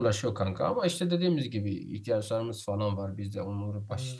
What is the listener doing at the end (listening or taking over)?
listening